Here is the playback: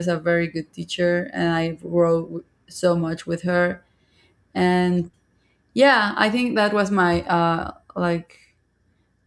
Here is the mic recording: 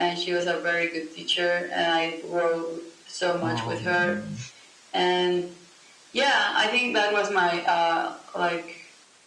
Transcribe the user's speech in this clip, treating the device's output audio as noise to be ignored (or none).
Um,